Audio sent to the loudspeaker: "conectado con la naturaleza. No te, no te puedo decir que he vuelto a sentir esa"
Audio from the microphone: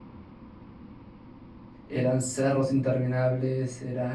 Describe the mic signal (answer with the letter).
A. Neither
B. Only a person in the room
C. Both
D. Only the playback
B